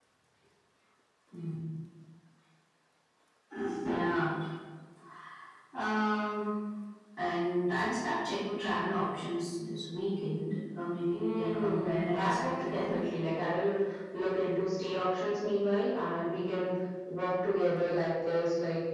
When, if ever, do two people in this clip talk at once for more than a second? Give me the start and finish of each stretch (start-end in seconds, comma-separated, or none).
11.1-13.0